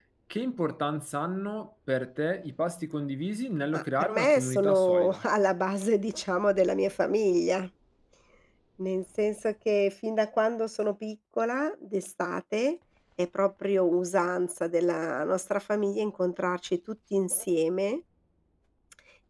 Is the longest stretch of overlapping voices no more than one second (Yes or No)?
No